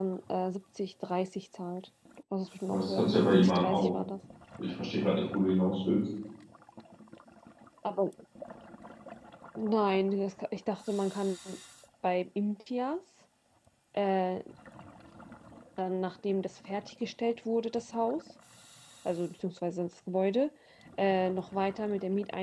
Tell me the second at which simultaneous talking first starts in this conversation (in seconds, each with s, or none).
2.7 s